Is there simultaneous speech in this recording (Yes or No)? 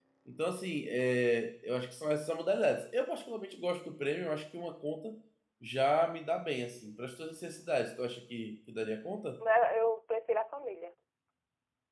No